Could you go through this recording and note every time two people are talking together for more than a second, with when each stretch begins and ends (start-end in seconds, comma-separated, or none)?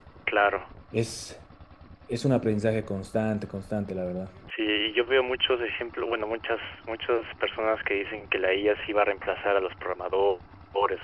none